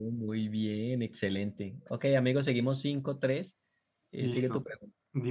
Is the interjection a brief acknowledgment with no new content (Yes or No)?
No